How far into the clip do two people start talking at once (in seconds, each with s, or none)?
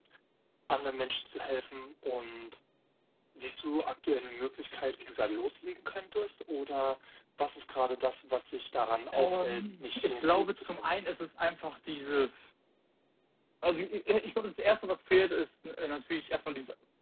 9.1 s